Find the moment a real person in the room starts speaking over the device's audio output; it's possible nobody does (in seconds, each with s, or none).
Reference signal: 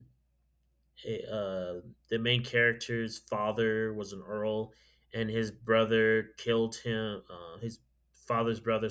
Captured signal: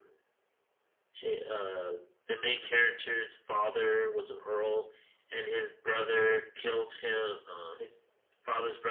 none